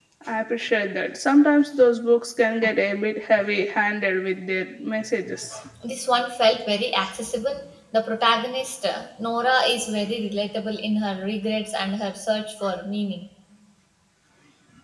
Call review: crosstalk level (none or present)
none